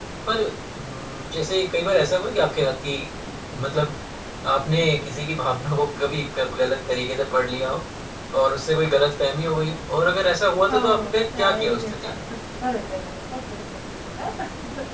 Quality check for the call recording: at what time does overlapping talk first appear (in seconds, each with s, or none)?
10.7 s